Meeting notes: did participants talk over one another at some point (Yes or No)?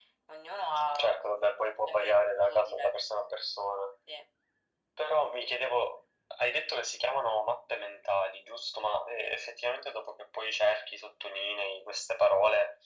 Yes